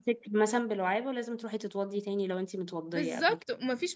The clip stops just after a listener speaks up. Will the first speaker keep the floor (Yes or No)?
No